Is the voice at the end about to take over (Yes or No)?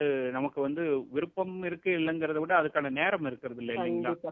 Yes